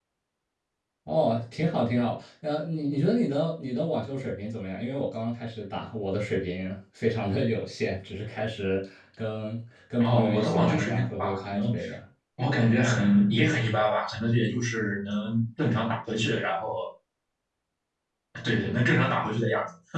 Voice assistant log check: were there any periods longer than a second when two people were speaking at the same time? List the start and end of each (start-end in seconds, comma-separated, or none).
10.0-11.7